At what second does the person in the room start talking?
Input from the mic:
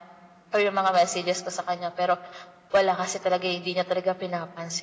none

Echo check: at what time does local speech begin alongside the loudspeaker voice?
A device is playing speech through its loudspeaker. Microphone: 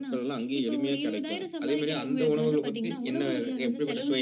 none

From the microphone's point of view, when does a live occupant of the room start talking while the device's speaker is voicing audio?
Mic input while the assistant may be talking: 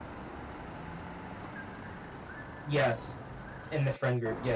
2.6 s

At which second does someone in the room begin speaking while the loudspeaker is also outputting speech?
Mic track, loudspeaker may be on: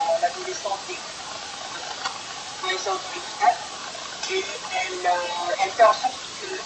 none

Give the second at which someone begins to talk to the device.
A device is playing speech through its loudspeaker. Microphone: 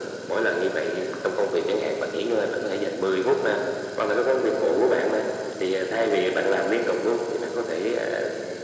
none

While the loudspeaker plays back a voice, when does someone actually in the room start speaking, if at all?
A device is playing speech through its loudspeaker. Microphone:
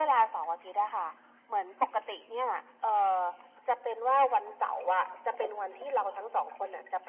none

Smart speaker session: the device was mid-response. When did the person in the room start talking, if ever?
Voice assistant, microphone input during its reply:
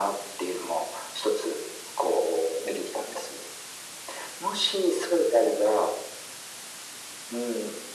none

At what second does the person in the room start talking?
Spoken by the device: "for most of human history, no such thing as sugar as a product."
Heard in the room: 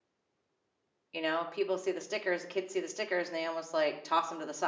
1.1 s

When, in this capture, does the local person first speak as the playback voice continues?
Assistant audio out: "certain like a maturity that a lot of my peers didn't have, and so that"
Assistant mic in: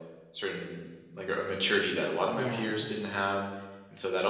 2.3 s

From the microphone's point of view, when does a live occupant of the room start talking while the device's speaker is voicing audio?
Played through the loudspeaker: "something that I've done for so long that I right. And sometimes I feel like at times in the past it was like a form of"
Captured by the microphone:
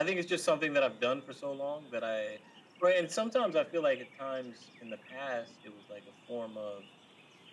none

